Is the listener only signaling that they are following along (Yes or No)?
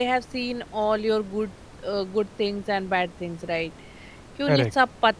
Yes